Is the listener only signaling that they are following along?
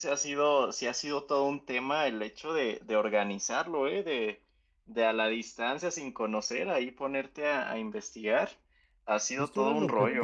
No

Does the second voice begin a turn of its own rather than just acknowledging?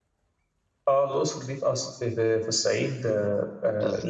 No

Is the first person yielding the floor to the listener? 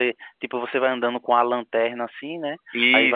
No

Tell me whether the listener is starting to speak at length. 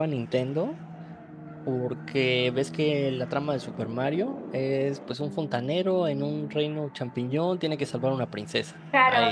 Yes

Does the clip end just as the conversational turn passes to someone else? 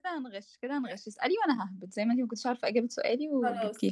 Yes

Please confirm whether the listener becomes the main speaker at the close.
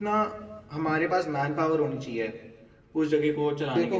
Yes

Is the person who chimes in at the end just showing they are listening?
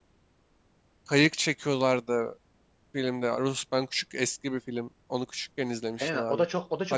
No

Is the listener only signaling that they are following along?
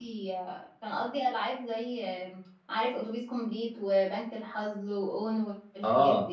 No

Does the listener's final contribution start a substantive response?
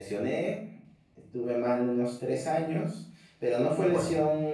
No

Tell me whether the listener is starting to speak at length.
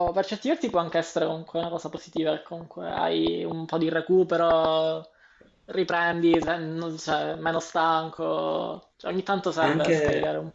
Yes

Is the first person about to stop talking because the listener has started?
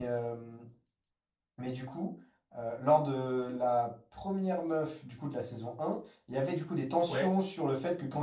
No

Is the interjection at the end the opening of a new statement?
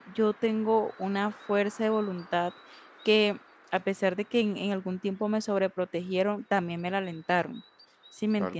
Yes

